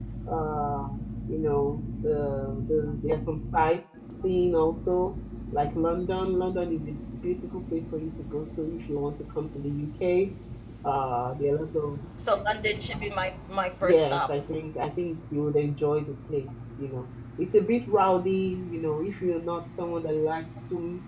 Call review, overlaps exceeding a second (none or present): none